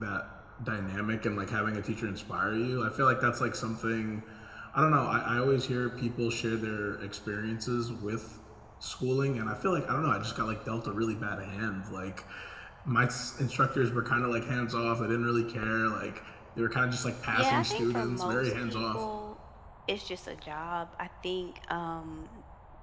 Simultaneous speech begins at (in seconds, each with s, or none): 17.3 s